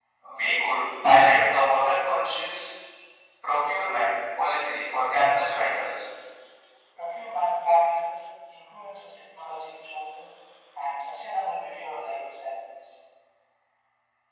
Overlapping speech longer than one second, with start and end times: none

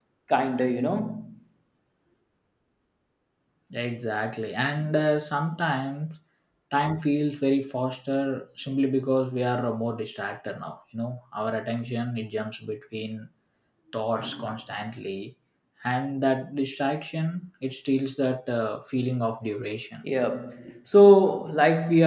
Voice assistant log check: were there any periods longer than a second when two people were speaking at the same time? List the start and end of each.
none

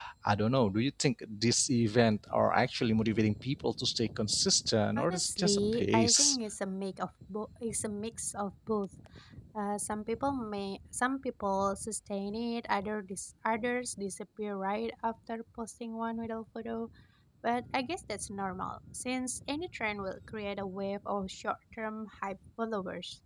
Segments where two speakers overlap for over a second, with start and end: 5.0-6.4

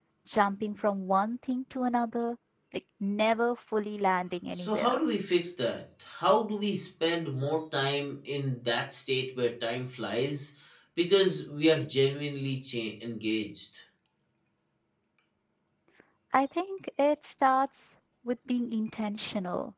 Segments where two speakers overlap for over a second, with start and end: none

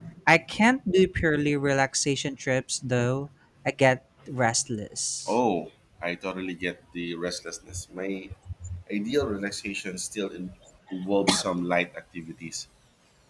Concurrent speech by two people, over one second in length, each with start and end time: none

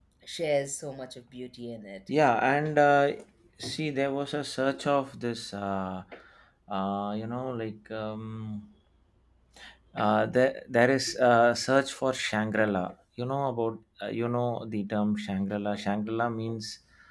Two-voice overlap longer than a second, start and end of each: none

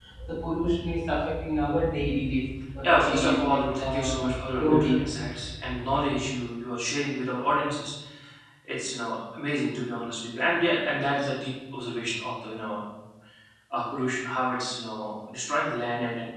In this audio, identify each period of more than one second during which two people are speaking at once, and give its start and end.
2.8-4.2

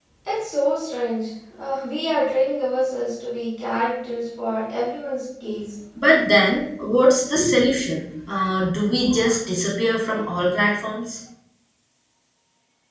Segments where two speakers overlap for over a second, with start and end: none

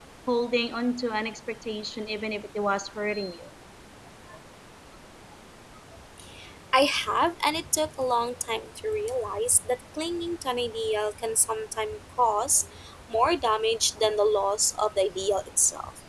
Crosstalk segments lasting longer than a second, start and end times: none

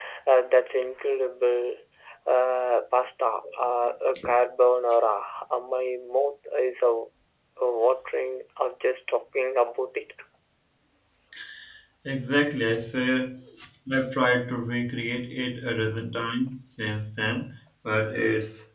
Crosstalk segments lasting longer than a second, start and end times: none

